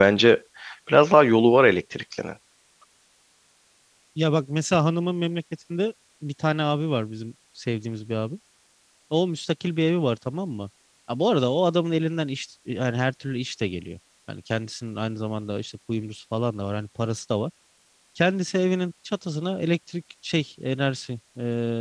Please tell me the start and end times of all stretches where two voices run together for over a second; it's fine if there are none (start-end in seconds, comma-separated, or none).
none